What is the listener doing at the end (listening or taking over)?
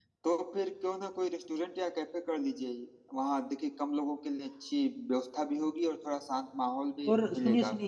taking over